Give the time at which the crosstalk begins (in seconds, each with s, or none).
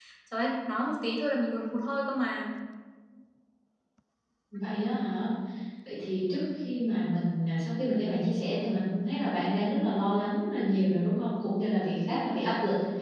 none